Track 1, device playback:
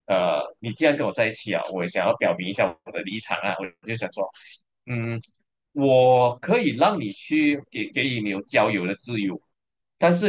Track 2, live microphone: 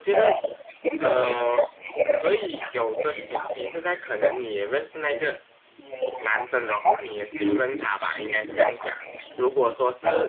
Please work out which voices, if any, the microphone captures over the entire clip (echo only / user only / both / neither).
both